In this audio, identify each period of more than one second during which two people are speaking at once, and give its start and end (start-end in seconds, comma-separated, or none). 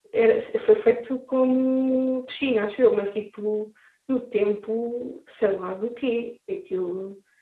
none